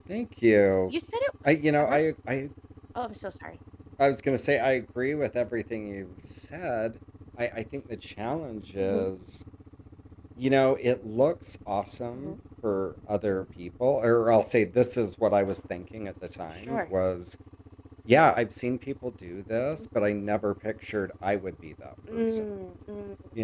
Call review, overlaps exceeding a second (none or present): none